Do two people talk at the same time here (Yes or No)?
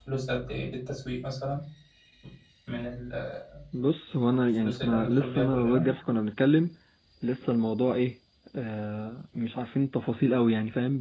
Yes